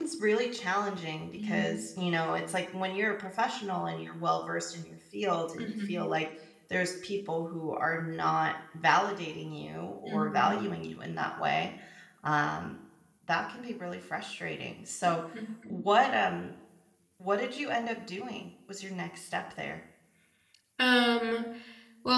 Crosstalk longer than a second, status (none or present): none